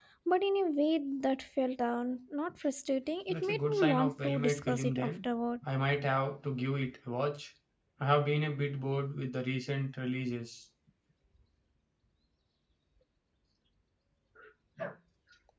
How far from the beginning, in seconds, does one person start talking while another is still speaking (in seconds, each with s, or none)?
3.3 s